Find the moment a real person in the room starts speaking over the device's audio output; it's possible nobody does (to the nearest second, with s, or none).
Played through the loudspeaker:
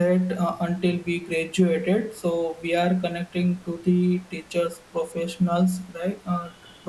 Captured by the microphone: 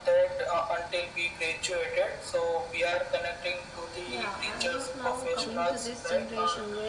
4 s